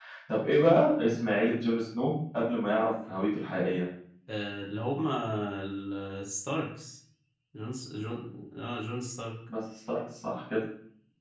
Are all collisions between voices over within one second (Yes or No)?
Yes